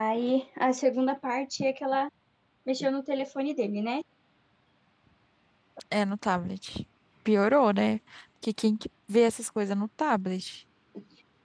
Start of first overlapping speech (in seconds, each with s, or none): none